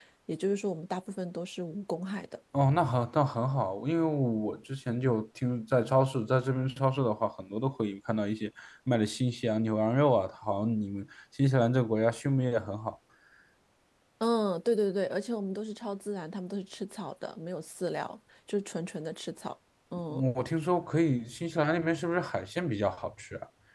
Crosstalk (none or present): none